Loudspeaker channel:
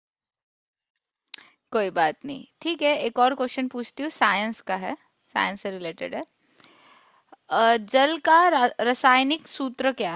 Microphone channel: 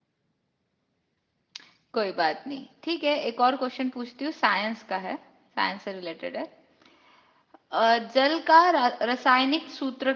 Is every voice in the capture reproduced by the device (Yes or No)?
Yes